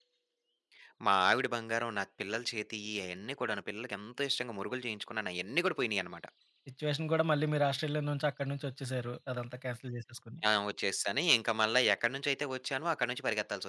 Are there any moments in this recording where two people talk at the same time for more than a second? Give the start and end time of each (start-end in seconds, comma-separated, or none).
none